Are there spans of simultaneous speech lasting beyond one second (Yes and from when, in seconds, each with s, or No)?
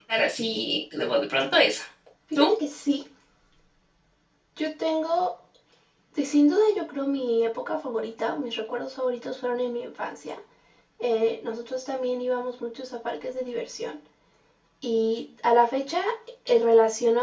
No